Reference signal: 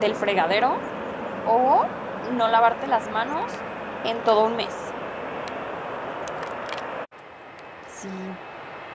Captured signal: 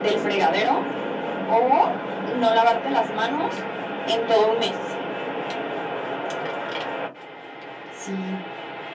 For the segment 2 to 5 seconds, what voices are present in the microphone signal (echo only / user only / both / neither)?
echo only